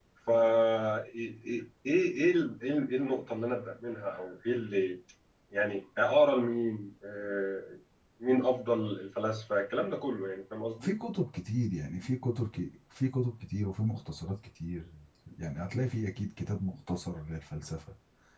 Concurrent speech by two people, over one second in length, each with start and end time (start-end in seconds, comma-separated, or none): none